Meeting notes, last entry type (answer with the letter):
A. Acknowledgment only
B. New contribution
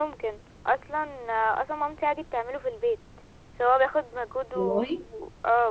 A